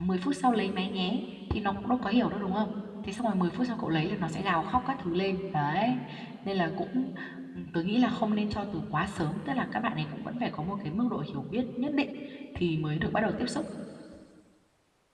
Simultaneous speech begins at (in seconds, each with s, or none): none